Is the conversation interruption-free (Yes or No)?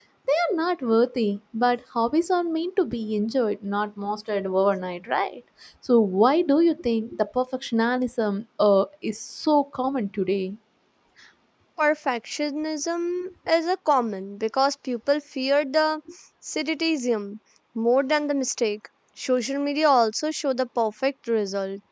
Yes